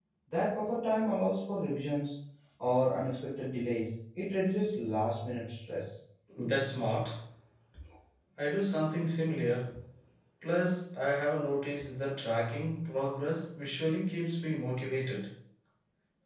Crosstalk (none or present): none